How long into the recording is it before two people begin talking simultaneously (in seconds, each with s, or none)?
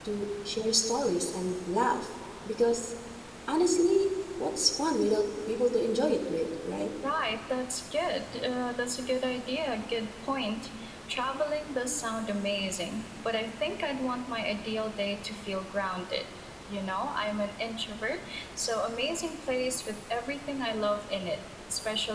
none